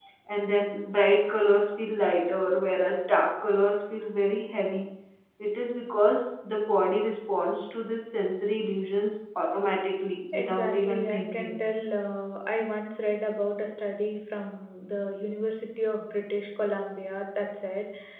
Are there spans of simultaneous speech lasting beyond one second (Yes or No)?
Yes